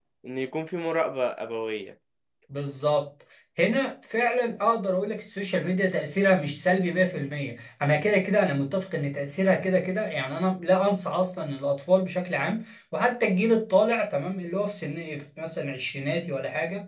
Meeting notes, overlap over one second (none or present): none